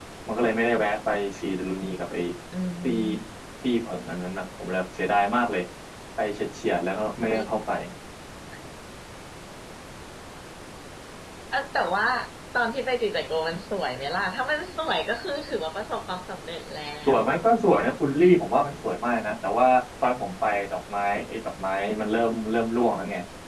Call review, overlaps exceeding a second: none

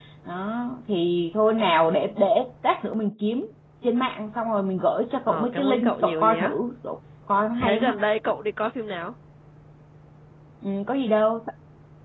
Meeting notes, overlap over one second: present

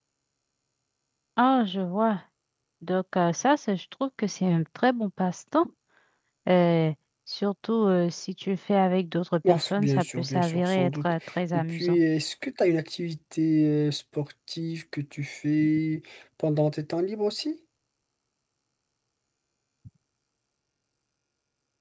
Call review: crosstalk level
present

